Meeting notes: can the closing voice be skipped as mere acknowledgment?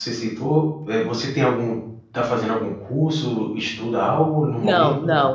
No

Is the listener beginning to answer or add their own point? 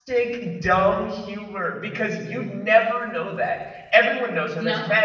No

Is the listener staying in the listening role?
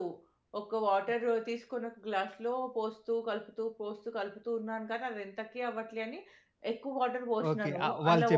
No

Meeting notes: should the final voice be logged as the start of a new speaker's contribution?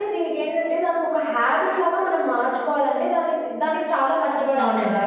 No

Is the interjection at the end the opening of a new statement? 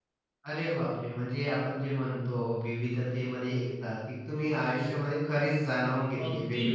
Yes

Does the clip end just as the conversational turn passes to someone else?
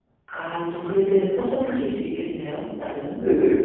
Yes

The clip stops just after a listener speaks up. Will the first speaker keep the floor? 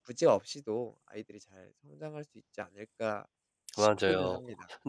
No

